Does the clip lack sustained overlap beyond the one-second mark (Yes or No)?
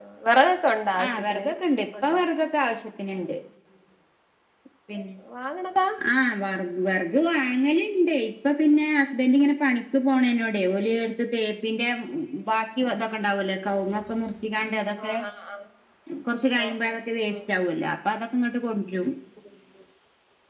Yes